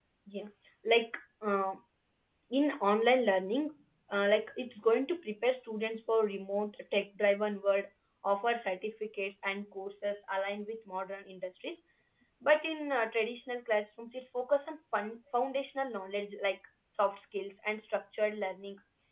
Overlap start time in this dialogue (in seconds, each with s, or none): none